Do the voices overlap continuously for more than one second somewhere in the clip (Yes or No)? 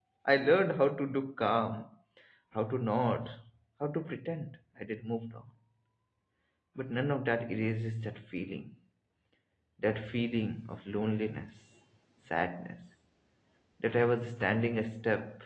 No